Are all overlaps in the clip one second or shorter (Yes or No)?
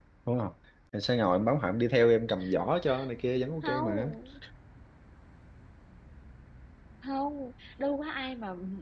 Yes